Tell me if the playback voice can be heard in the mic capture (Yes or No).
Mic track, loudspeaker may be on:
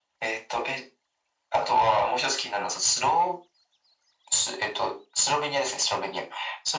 Yes